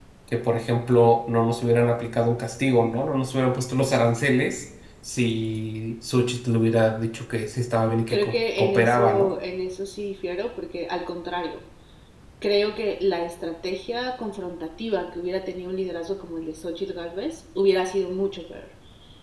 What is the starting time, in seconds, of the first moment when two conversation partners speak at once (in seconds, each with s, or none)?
8.1 s